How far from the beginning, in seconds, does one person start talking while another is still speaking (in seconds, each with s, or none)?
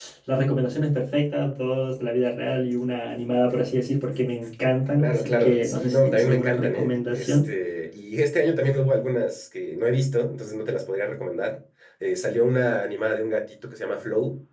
5.0 s